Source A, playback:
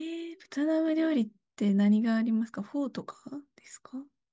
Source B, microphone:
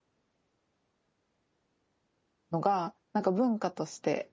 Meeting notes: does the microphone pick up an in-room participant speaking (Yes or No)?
Yes